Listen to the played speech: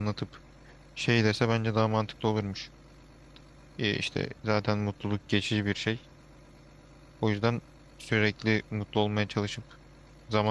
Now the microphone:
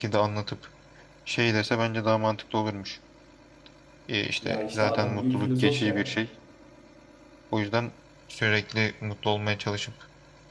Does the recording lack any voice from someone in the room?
No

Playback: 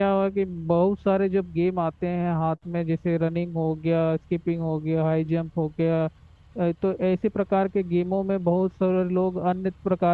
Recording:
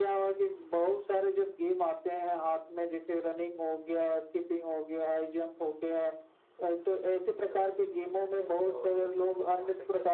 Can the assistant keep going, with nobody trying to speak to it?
No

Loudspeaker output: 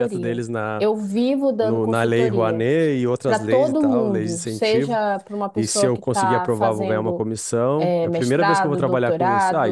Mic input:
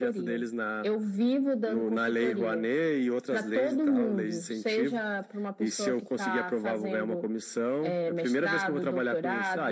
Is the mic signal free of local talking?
Yes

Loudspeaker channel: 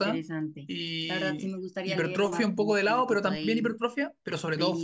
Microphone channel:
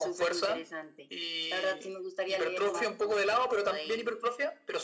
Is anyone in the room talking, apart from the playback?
No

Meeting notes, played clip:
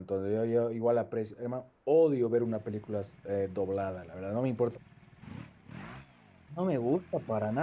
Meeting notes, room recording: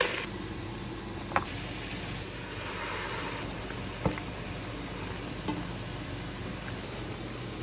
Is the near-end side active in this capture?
No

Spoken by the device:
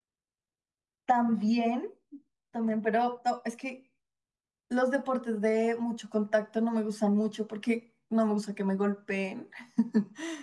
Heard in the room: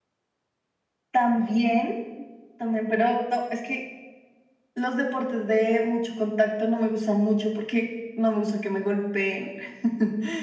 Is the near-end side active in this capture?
No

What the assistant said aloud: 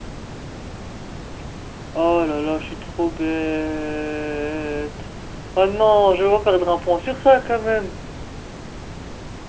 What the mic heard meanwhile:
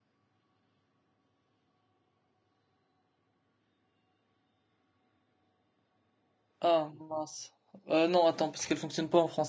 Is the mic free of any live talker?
No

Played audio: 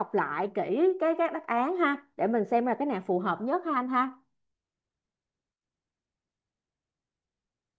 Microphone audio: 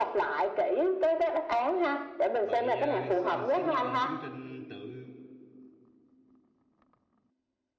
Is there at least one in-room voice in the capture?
Yes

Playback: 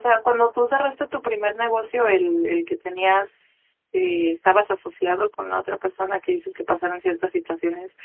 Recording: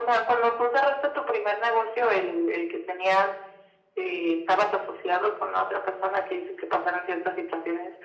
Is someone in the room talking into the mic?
No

